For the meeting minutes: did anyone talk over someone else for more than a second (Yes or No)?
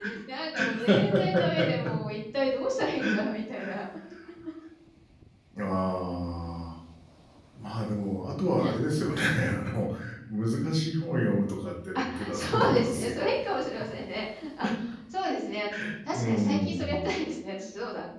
Yes